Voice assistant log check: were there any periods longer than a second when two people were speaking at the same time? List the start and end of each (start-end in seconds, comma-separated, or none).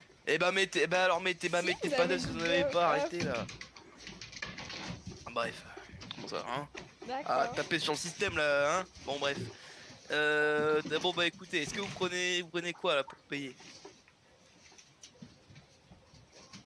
1.5-3.1